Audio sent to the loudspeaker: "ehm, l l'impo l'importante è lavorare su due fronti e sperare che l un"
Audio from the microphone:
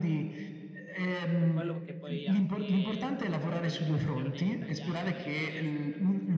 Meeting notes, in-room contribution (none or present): present